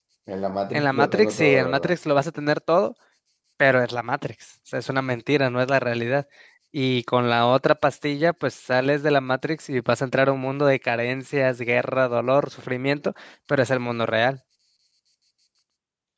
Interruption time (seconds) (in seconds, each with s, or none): 0.7 s